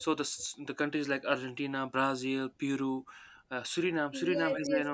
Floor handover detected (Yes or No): Yes